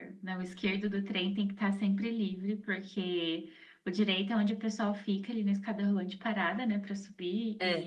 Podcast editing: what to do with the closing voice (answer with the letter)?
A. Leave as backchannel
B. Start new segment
A